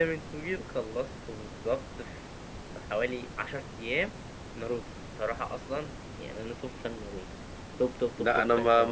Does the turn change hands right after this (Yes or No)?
Yes